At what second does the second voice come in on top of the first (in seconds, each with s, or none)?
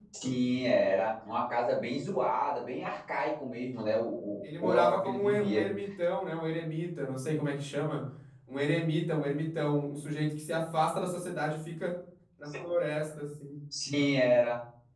4.4 s